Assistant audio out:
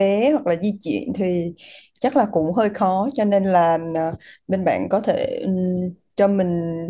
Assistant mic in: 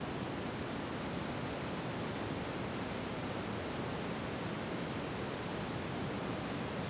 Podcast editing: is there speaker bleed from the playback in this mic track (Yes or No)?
No